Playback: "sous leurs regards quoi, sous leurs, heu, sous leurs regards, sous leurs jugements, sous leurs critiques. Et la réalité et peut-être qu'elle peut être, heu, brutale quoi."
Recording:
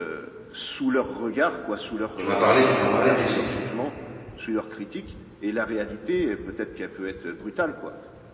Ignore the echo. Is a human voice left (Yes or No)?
Yes